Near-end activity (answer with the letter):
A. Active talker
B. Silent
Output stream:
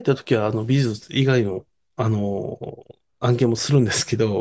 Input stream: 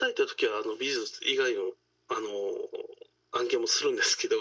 B